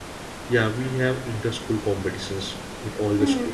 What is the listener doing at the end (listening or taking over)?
taking over